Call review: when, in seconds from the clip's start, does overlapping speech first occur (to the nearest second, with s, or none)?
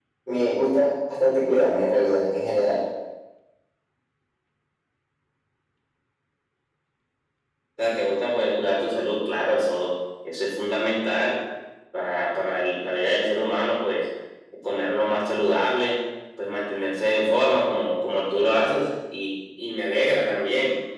none